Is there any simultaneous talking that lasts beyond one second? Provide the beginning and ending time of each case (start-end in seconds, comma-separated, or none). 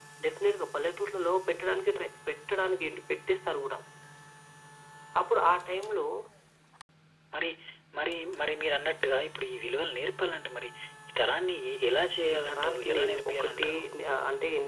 12.3-13.7